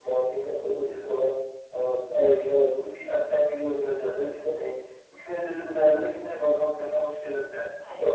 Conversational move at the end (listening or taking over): listening